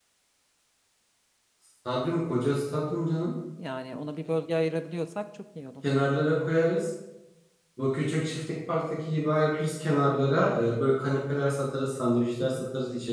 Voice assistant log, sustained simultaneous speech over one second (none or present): none